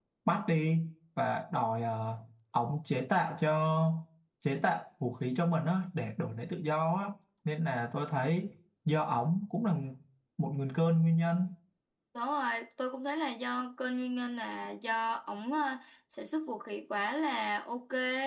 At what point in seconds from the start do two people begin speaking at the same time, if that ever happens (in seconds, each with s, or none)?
none